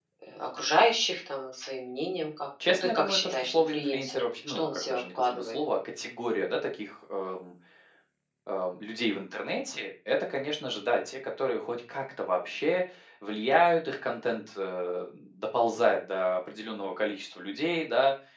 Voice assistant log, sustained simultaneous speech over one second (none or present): present